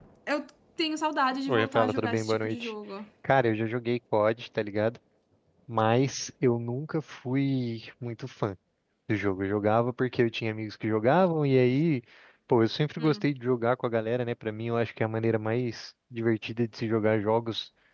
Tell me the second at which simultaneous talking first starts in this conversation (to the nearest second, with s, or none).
1 s